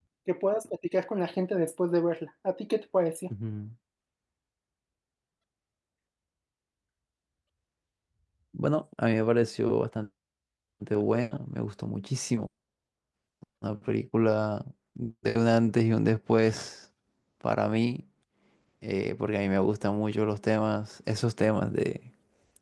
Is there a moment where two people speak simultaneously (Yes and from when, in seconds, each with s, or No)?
No